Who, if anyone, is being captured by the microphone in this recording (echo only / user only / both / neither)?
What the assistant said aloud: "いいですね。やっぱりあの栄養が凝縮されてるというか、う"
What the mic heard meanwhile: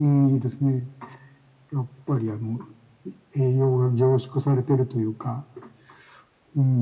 echo only